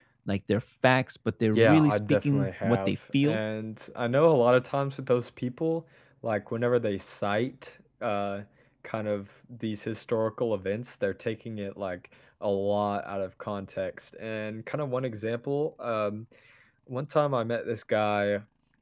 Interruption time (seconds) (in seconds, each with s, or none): 1.5 s